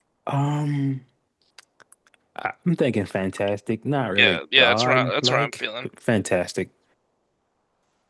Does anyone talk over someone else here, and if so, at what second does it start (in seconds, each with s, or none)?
4.2 s